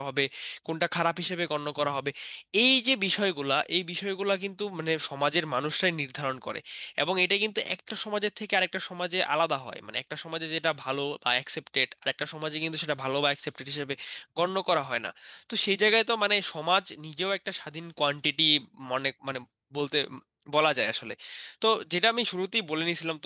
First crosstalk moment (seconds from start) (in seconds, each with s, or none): none